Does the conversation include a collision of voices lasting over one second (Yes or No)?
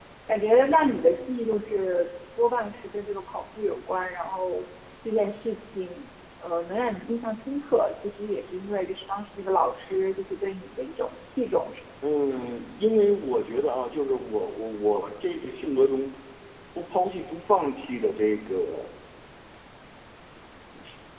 No